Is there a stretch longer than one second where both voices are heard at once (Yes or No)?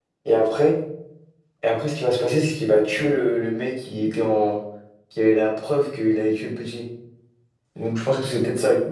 No